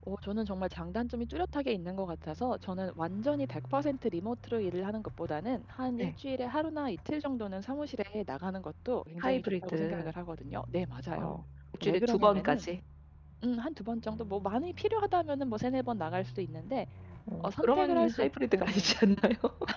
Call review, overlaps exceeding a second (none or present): present